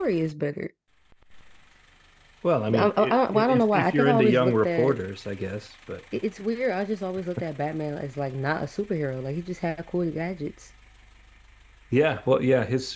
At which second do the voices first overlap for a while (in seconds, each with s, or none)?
2.7 s